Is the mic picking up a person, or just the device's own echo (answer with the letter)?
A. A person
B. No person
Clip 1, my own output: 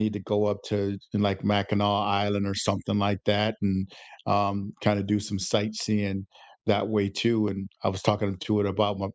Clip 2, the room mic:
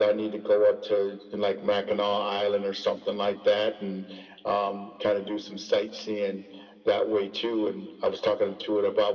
B